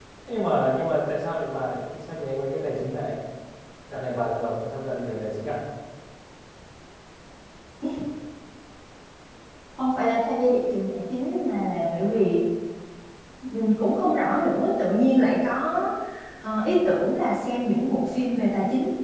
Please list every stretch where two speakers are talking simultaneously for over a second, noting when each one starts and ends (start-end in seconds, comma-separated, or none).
none